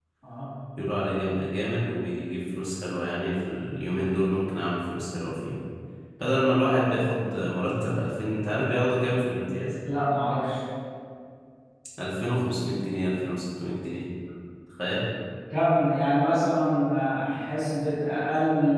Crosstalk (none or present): none